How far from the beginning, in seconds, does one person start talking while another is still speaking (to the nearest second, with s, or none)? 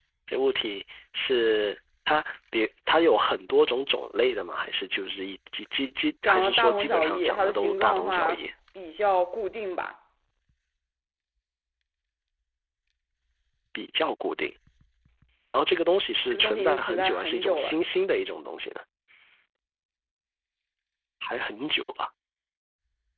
6 s